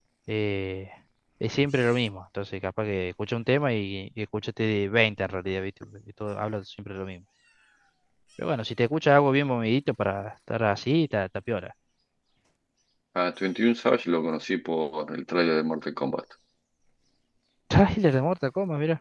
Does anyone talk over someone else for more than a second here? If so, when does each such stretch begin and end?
none

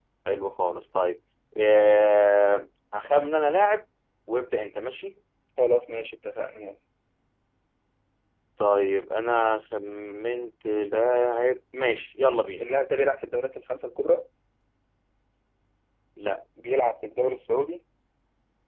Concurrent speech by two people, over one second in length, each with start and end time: none

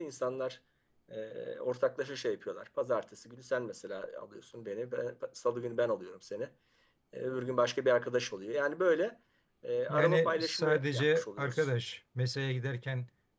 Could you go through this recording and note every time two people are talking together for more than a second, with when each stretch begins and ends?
9.9-11.7

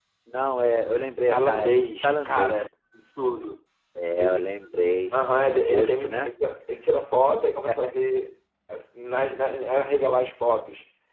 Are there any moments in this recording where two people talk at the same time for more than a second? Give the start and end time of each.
1.3-2.6, 5.1-6.3

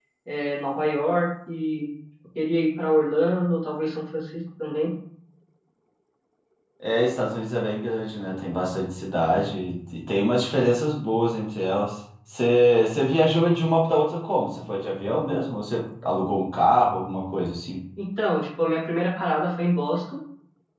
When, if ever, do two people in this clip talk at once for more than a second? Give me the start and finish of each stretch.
none

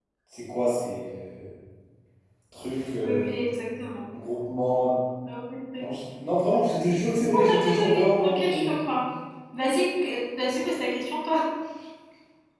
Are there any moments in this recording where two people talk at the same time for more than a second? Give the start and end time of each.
7.5-8.8

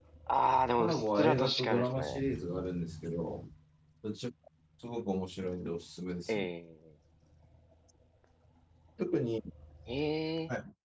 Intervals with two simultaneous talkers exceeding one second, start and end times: 0.8-2.0

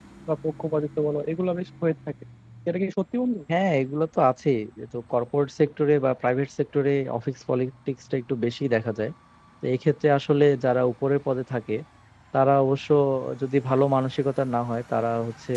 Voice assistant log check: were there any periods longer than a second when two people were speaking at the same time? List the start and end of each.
none

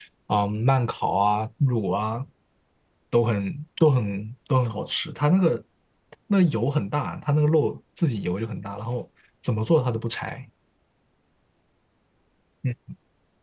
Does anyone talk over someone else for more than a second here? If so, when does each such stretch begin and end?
none

